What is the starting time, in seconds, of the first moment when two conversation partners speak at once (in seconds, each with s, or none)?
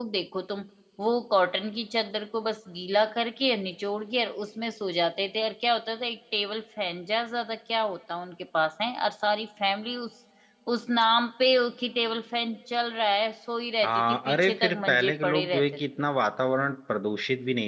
13.8 s